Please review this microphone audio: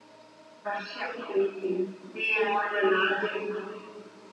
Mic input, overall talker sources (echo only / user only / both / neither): echo only